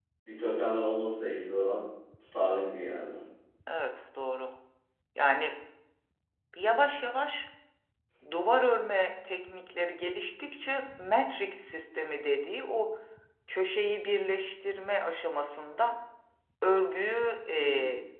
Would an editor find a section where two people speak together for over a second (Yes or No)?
No